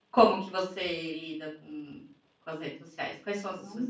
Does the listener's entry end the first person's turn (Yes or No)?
Yes